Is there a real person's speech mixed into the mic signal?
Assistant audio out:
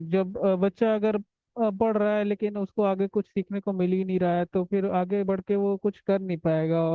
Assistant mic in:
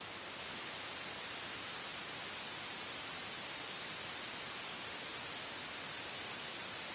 No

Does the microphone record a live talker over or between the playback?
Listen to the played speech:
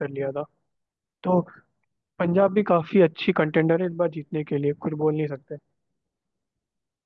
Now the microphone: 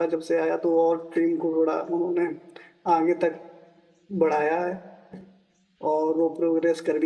Yes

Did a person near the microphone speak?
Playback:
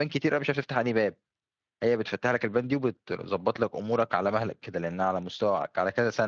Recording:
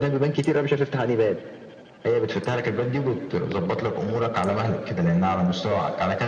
No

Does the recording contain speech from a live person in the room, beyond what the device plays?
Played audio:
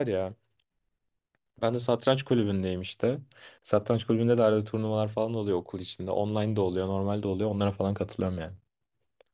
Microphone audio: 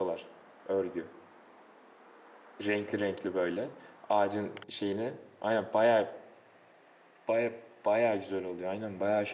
Yes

